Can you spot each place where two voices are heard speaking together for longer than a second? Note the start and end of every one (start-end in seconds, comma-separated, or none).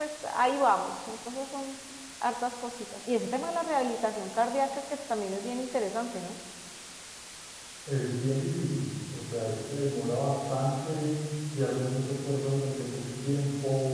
none